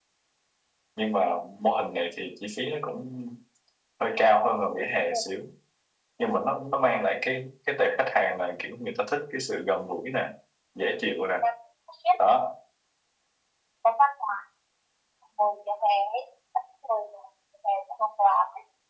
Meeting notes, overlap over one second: none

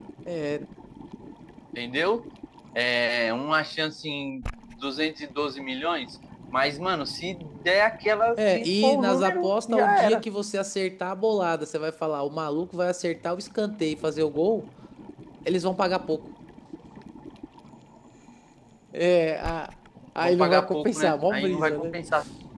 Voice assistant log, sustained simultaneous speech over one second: present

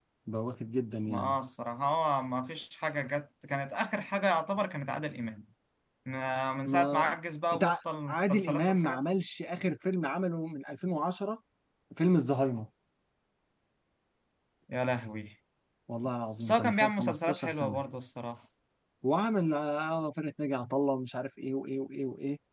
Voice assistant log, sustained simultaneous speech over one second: present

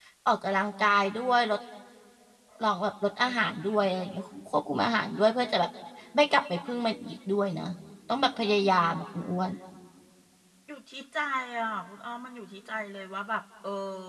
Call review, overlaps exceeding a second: none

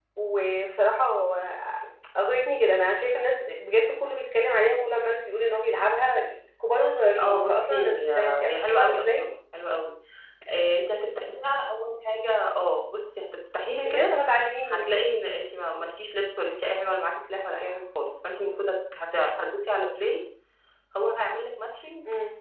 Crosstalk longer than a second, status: present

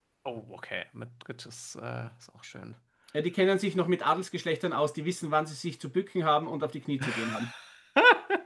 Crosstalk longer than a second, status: none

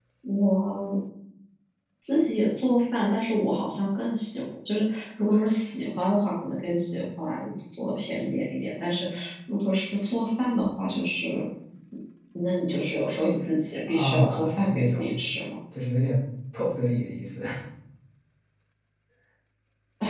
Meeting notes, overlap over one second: present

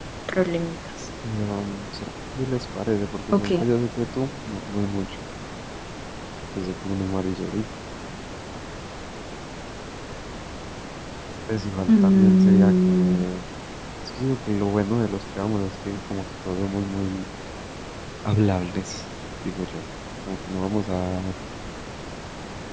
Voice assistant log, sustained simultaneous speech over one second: present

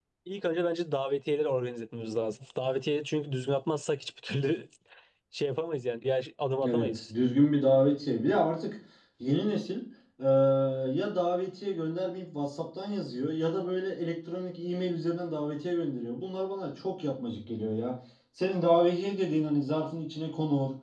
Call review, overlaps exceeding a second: none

